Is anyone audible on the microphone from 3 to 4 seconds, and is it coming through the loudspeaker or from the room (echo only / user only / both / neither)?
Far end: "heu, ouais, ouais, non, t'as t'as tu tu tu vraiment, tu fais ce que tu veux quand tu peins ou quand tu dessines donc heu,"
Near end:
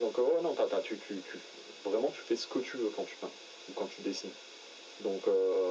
echo only